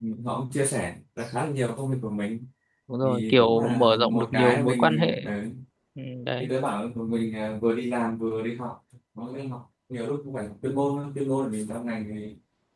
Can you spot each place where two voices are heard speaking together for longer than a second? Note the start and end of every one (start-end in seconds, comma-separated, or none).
3.0-5.2